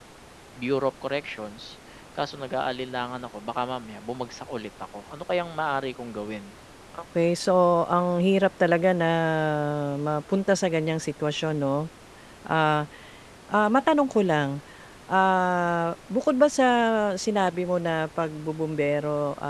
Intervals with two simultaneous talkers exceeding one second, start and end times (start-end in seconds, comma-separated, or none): none